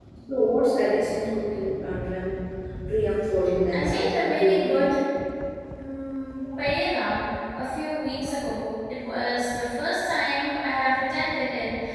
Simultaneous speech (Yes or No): Yes